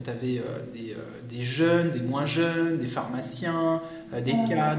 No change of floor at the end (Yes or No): Yes